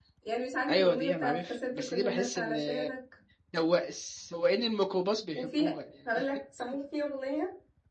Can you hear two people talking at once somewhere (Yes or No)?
Yes